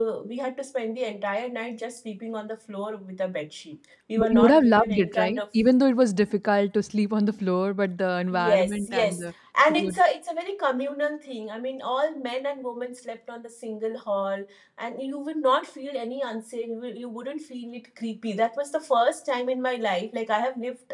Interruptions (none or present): present